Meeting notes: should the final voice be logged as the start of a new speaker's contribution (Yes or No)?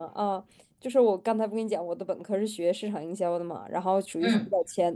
No